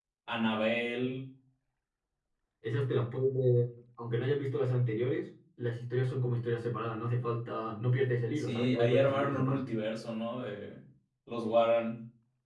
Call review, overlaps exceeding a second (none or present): present